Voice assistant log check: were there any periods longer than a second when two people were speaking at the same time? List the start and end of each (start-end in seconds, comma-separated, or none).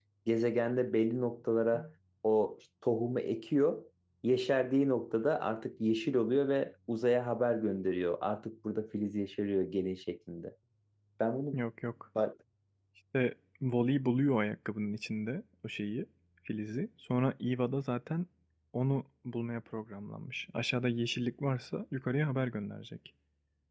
none